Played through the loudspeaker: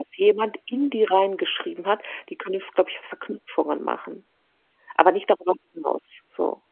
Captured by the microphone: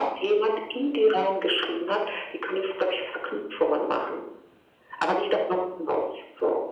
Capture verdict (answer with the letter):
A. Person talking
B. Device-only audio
B